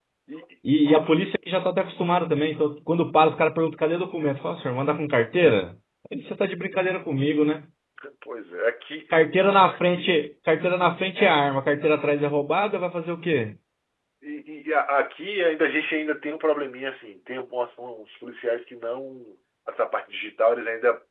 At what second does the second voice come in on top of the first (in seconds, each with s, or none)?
none